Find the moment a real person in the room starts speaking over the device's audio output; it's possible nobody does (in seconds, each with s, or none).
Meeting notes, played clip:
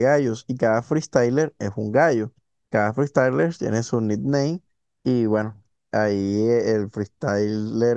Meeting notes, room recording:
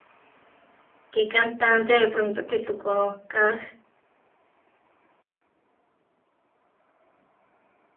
1.1 s